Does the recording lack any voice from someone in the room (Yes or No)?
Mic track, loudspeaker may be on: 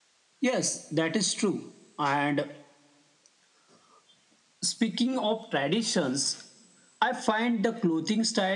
Yes